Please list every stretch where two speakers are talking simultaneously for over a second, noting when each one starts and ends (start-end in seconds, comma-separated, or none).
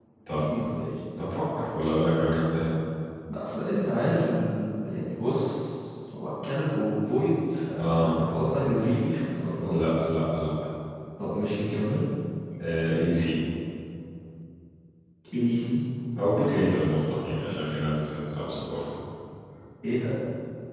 none